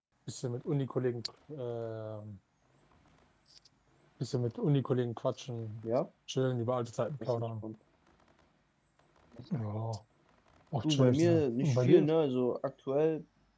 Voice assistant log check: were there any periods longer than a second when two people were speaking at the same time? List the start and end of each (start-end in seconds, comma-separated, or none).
10.8-12.0